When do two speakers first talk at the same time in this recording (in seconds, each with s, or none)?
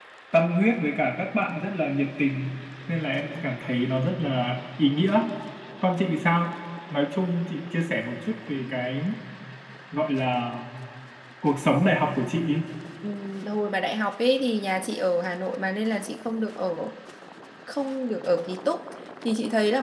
none